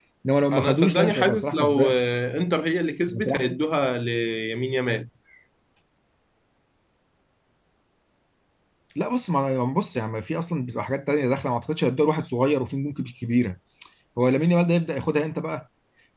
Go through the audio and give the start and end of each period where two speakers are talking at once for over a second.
0.5-2.0

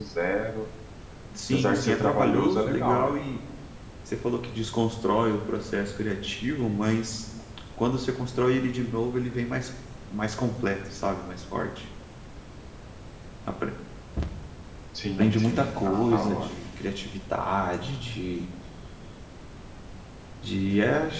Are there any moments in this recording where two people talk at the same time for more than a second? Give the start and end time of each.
1.5-3.2, 15.2-16.6

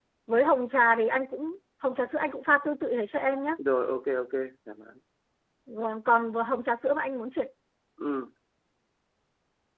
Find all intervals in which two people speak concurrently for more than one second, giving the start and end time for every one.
none

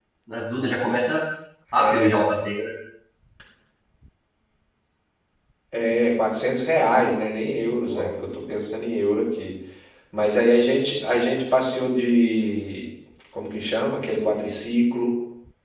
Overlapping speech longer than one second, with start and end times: none

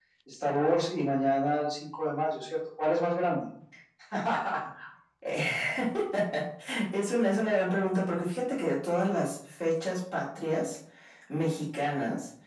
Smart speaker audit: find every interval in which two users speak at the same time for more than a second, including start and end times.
none

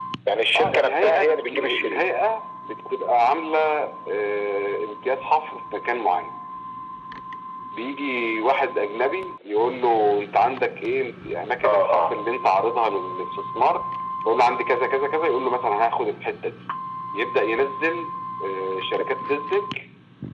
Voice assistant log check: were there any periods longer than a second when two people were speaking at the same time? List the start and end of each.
0.6-2.0

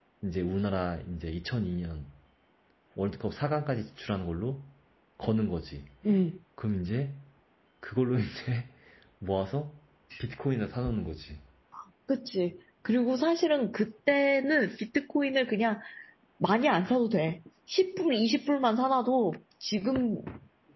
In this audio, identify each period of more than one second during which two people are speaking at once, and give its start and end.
none

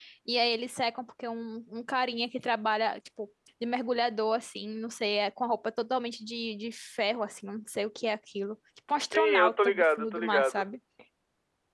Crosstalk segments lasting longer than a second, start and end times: 9.0-10.7

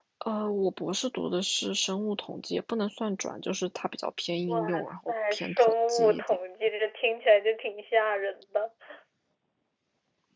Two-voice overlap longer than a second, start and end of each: 4.5-6.2

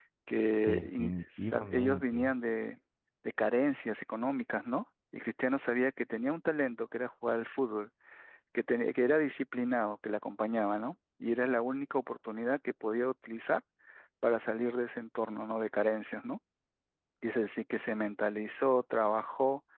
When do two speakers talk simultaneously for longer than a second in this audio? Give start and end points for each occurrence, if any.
0.7-2.3

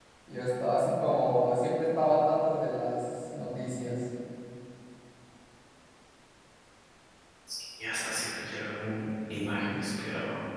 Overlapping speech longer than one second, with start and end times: none

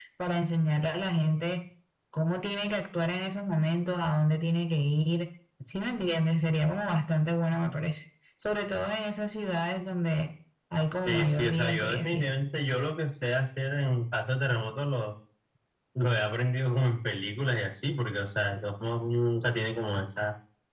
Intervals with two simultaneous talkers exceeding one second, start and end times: 10.9-12.2

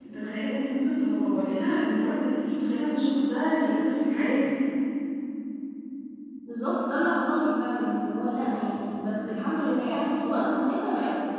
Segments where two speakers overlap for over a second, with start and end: none

